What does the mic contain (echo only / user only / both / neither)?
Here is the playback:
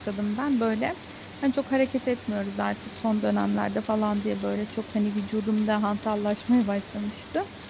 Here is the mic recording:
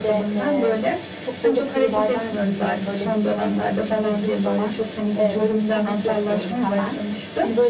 both